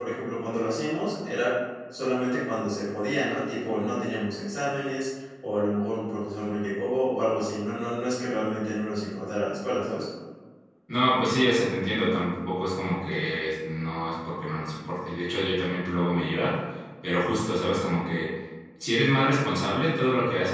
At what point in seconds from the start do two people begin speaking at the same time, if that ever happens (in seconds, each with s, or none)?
none